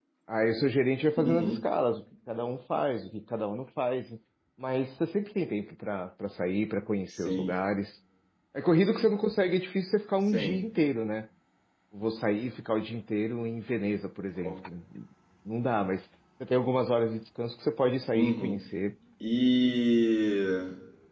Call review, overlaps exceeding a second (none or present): none